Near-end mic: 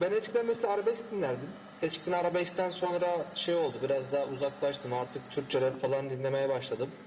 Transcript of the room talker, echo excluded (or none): none